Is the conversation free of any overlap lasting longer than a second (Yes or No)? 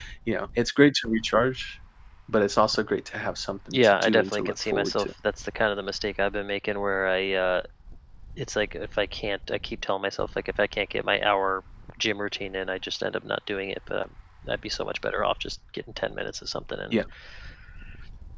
No